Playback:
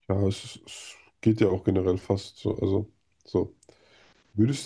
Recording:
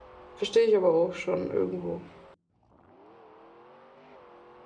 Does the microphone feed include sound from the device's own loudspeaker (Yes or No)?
No